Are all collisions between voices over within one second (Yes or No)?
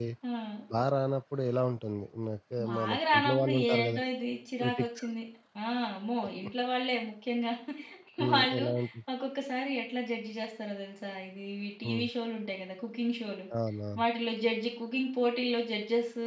No